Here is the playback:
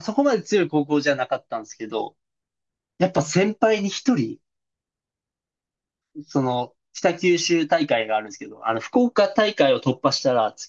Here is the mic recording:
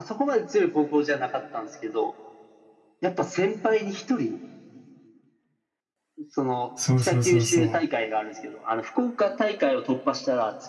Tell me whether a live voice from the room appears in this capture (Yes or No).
Yes